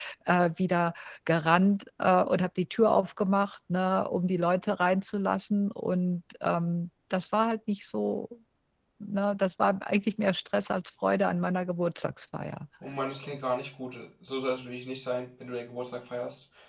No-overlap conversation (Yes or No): Yes